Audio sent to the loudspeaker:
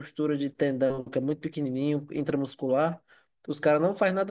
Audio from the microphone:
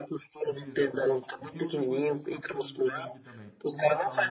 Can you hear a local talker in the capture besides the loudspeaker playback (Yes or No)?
Yes